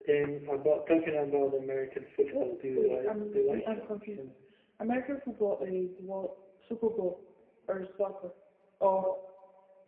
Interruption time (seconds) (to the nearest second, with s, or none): 2 s